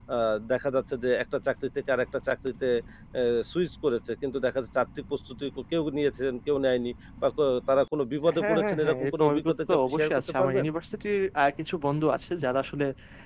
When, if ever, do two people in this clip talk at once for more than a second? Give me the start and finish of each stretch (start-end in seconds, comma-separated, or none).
8.4-10.7